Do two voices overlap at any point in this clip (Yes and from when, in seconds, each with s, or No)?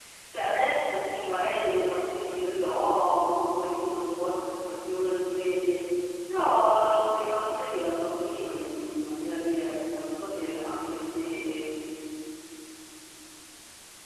No